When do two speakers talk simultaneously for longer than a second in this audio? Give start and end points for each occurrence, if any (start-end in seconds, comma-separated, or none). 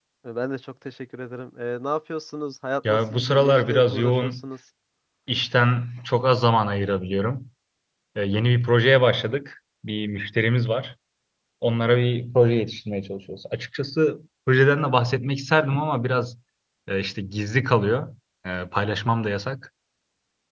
2.9-4.4